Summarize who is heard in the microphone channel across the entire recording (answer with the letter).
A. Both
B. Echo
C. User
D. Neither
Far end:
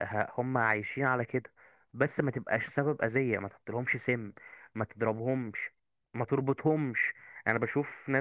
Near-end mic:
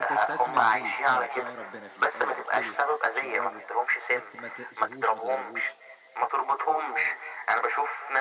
A